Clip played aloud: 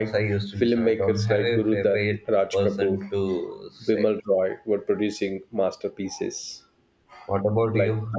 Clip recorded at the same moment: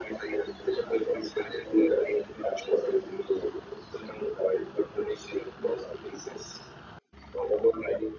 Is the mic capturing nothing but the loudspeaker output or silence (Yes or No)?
Yes